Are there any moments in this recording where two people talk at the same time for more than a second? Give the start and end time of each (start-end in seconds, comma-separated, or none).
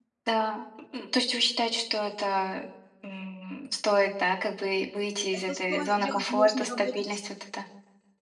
5.3-7.0